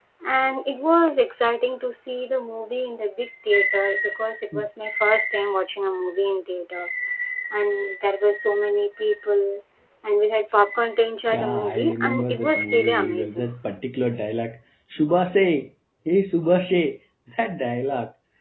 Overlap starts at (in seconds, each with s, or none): 11.3 s